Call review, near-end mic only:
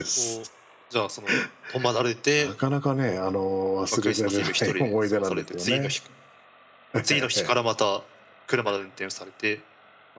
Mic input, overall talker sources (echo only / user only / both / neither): echo only